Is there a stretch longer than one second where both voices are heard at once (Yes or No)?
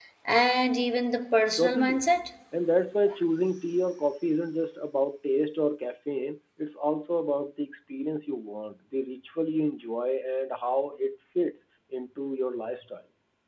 No